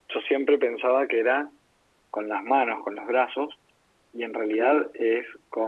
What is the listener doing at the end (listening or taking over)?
listening